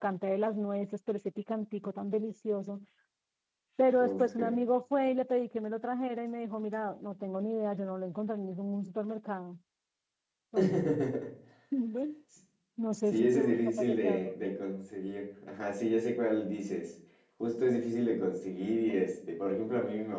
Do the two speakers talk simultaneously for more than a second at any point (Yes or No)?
Yes